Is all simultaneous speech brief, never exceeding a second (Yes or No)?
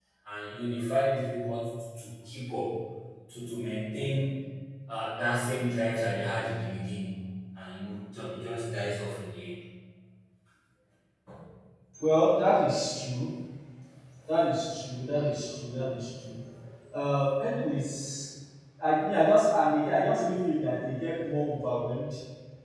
Yes